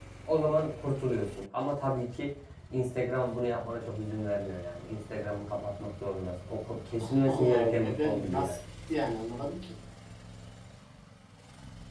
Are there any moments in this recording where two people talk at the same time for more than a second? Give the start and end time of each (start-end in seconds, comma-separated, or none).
7.0-8.6